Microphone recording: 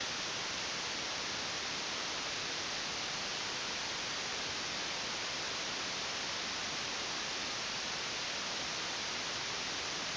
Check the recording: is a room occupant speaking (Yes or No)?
No